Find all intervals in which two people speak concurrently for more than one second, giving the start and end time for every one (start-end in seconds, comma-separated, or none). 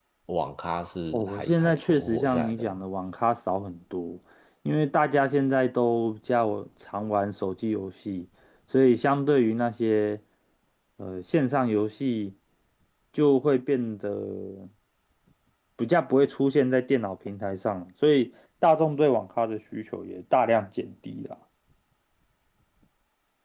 1.1-2.8